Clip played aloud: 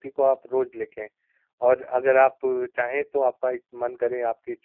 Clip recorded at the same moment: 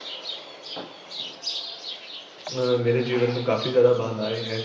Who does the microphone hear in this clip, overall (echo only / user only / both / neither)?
user only